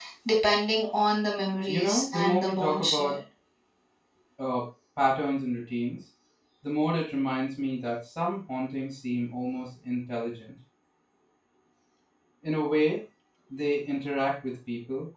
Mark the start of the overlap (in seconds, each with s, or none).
1.7 s